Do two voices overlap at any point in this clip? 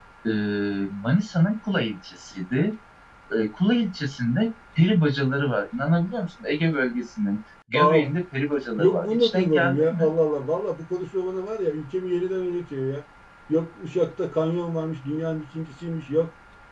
Yes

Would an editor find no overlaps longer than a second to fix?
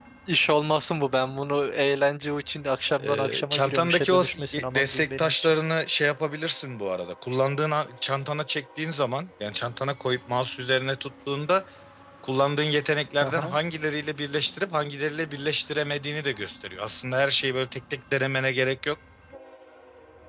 No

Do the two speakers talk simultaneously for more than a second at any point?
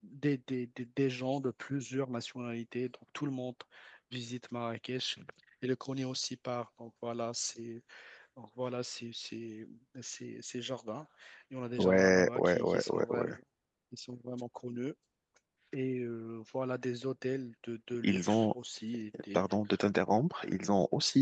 Yes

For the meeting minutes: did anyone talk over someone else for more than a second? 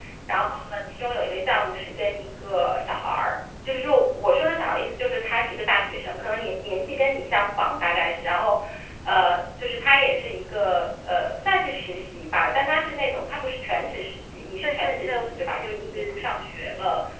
Yes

